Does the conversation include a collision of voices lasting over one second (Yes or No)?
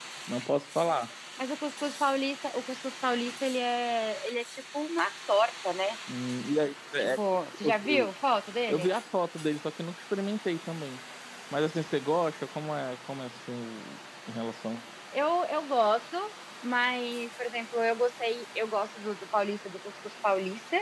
No